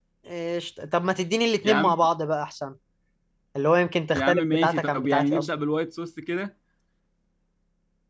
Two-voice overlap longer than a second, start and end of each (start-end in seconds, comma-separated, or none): 4.1-5.5